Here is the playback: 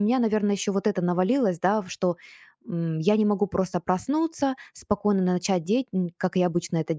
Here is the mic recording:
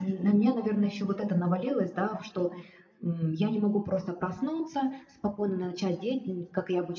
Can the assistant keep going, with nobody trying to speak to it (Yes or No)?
Yes